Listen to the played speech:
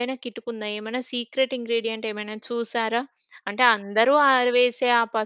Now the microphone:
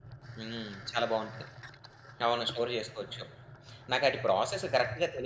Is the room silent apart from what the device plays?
No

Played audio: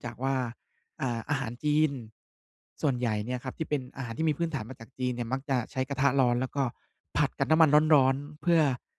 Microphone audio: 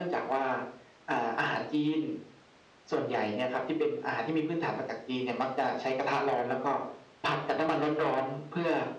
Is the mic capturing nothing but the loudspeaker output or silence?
Yes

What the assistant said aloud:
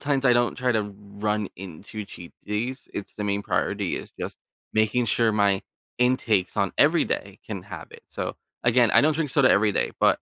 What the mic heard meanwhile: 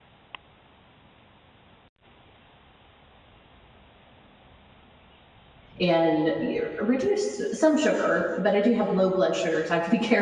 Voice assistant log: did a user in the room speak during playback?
Yes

